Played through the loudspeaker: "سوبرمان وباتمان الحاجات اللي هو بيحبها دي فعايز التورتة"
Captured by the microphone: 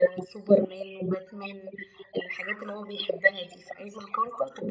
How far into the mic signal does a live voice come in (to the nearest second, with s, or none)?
none